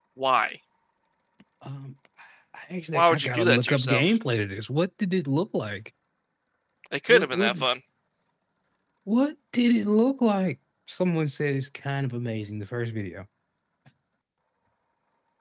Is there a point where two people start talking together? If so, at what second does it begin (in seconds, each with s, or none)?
2.9 s